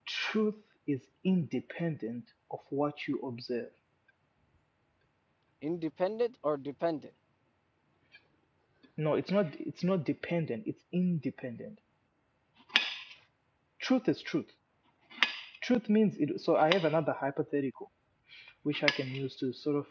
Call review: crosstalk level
none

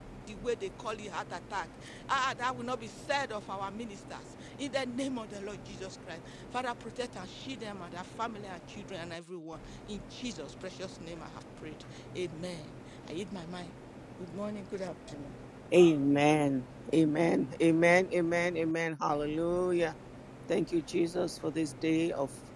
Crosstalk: none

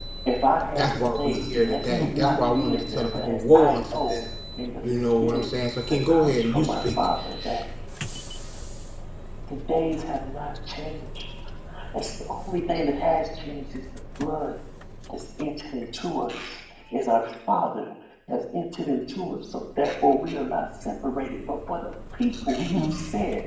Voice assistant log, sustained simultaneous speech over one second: present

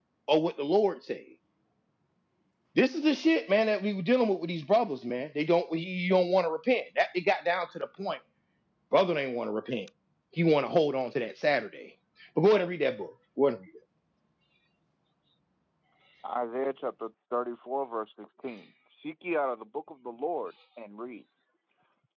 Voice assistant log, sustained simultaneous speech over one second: none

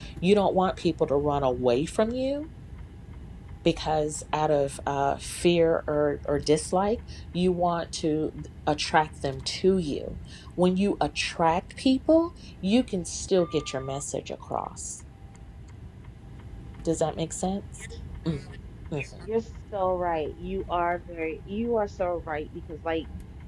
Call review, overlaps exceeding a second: none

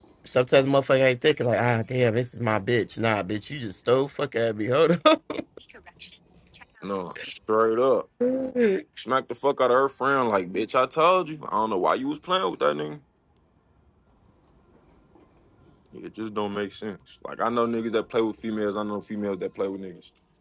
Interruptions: none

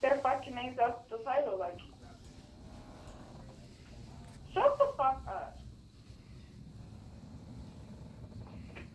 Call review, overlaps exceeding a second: none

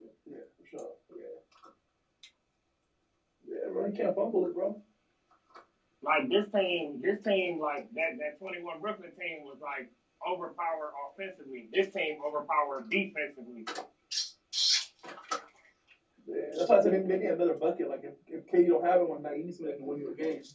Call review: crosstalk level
none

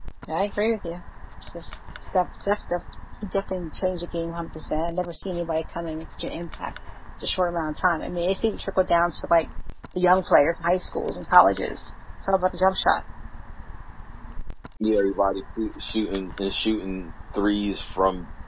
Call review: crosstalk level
none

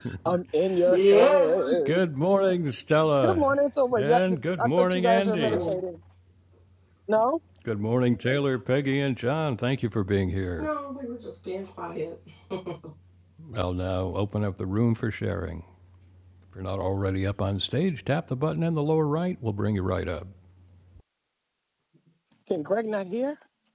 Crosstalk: present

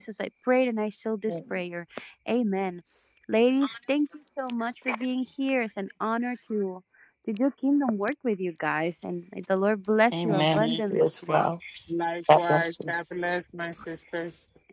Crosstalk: present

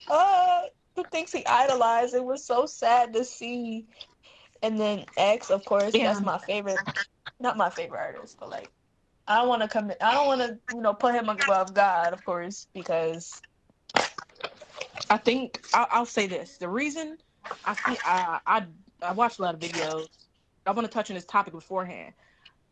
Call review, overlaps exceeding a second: none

